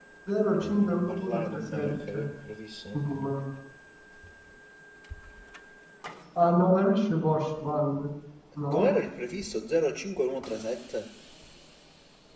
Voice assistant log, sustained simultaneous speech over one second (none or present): present